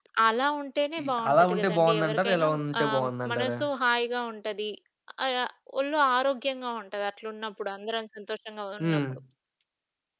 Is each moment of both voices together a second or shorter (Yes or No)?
No